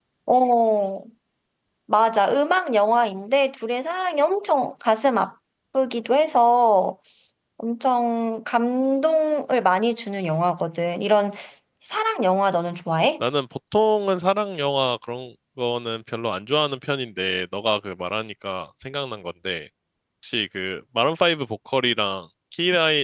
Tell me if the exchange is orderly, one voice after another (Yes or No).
Yes